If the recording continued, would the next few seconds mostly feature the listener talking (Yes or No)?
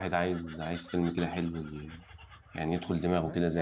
Yes